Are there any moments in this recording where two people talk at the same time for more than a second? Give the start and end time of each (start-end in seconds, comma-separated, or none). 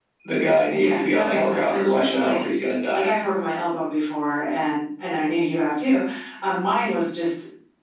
0.7-2.4